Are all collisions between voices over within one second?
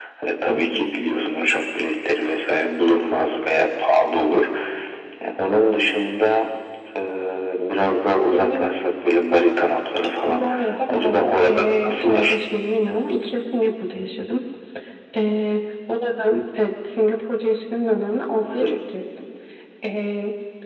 No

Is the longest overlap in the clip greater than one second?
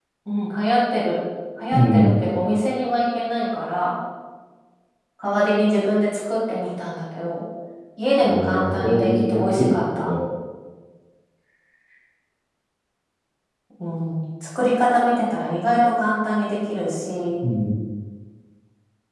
Yes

